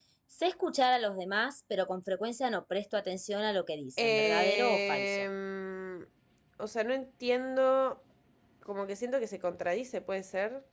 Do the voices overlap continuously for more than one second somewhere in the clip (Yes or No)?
Yes